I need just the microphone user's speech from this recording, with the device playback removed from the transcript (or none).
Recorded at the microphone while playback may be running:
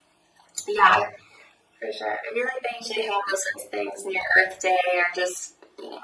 none